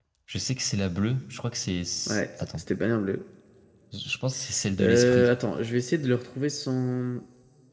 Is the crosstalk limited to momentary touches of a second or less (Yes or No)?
Yes